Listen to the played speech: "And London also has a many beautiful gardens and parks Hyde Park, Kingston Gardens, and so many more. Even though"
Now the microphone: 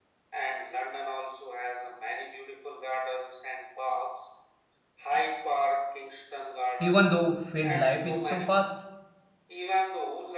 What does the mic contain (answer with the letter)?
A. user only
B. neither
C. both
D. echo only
C